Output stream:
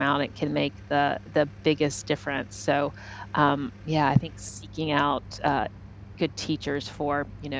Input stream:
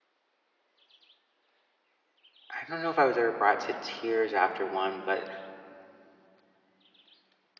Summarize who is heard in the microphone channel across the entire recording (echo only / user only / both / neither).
user only